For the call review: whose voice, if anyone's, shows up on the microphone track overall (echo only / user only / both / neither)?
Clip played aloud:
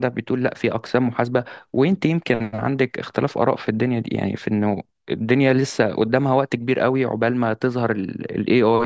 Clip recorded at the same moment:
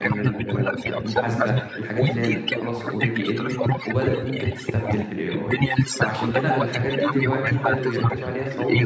both